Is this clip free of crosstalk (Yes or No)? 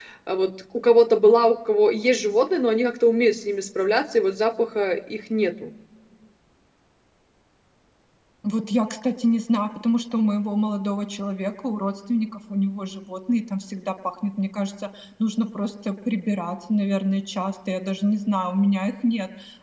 Yes